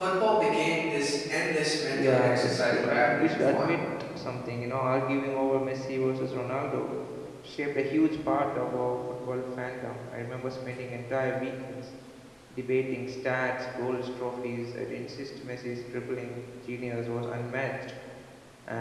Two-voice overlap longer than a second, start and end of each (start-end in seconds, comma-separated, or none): 1.9-3.7